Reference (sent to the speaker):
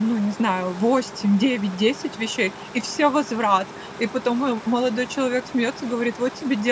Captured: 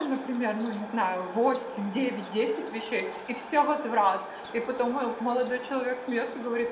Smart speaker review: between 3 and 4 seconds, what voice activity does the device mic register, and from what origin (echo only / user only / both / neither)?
echo only